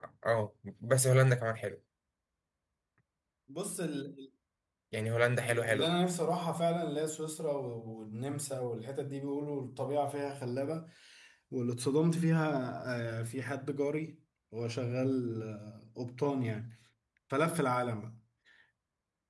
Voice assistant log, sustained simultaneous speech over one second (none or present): none